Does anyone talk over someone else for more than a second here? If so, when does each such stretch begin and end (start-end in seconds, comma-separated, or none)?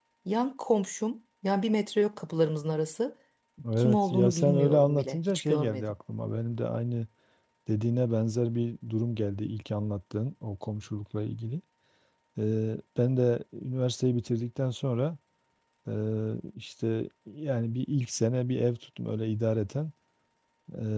3.8-5.8